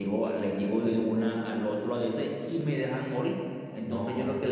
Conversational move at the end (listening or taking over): listening